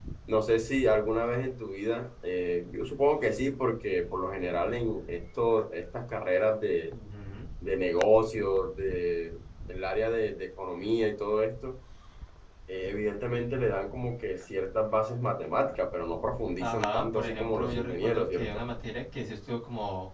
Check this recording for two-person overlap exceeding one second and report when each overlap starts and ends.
16.6-18.6

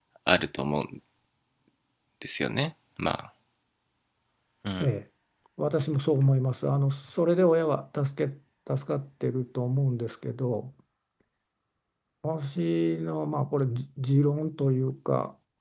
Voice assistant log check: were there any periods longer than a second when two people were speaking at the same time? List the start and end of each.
none

